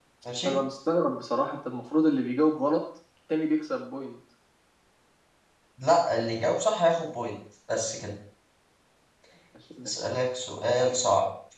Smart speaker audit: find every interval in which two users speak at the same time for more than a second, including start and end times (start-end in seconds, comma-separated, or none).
none